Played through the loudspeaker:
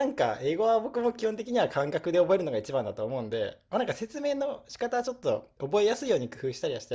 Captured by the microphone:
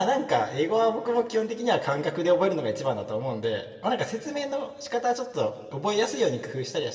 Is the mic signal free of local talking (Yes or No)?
Yes